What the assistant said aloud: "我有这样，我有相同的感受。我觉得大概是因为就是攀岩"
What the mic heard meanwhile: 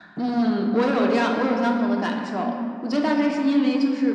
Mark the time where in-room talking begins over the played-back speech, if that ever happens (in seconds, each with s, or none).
none